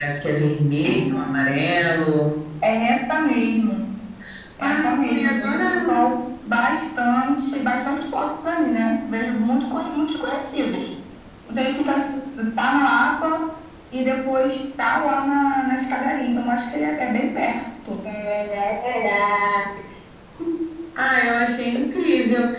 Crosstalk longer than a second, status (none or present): present